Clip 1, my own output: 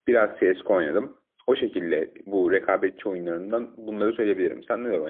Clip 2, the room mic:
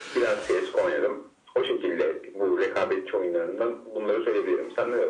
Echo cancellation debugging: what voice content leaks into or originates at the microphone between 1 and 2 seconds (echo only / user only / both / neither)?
echo only